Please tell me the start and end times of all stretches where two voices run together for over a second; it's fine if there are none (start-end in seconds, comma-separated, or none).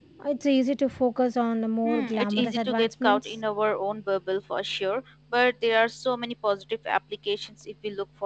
1.8-3.3